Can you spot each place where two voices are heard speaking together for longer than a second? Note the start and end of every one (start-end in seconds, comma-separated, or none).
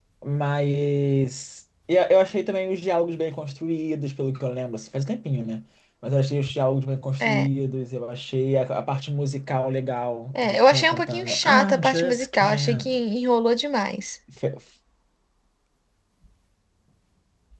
10.4-13.0